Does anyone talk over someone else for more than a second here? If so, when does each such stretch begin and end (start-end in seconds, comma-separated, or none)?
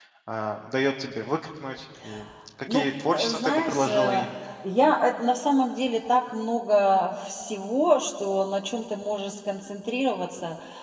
2.7-4.2